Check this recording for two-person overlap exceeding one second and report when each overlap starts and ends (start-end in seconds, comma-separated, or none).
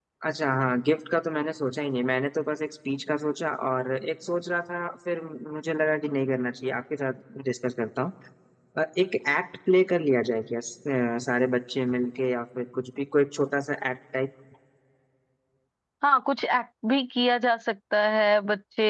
none